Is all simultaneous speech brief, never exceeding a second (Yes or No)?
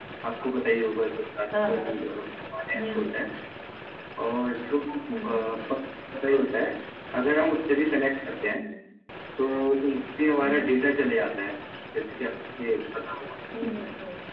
Yes